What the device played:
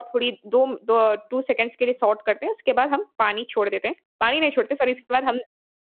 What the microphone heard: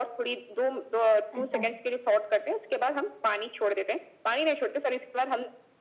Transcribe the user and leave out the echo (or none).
अच्छा।